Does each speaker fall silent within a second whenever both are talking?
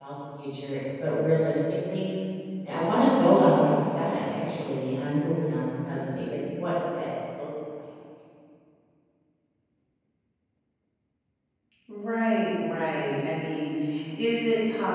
Yes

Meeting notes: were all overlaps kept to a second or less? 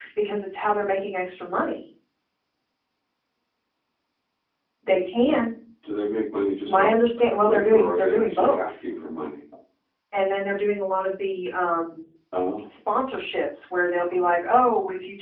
No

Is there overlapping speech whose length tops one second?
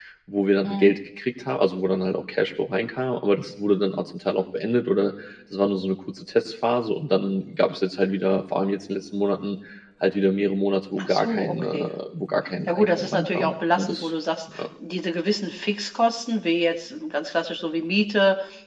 Yes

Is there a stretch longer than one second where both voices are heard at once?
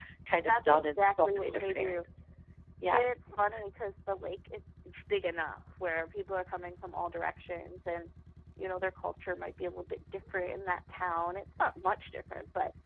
Yes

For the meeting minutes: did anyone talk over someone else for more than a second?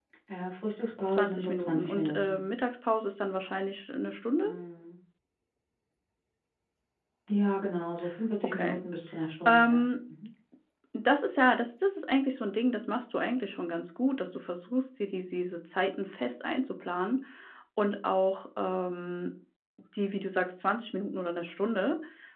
Yes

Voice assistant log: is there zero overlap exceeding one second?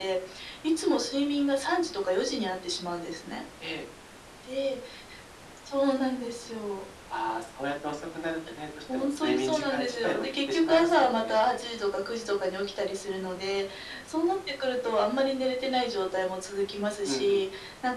No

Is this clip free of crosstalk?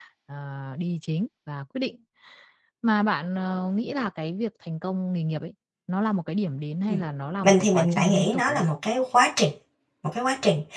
No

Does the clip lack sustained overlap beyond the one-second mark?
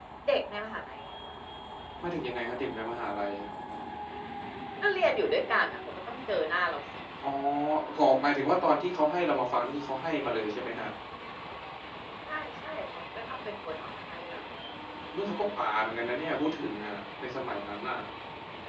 Yes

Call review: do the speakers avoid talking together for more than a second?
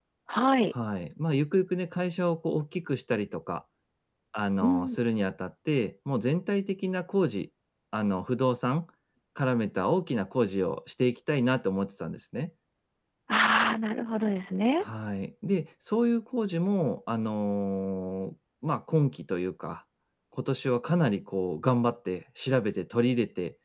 Yes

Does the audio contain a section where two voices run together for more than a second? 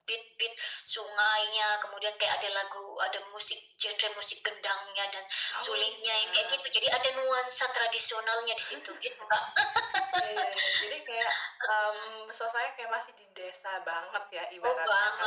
Yes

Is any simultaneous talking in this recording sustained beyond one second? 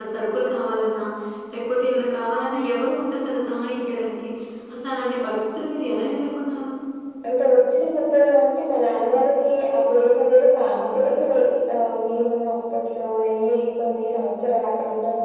No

